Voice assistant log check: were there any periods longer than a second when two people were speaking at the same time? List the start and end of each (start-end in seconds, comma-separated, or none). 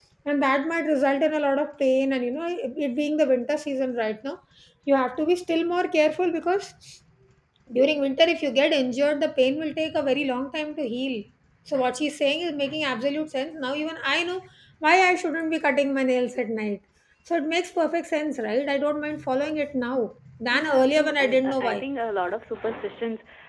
20.5-21.8